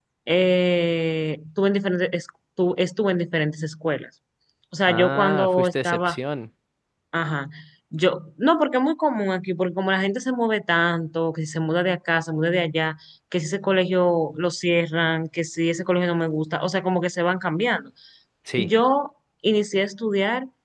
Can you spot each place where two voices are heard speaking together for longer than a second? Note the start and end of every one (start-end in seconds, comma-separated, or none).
4.9-6.2